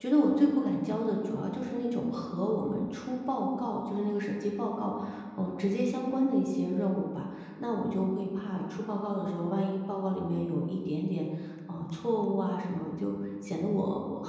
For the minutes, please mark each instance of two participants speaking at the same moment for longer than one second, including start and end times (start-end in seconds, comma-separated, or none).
none